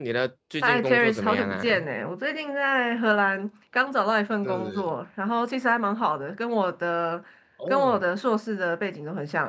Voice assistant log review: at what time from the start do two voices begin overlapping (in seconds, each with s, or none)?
0.6 s